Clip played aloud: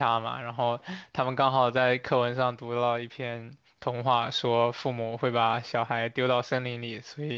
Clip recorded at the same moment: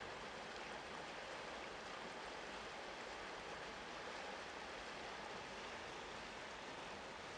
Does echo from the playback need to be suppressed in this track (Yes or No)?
No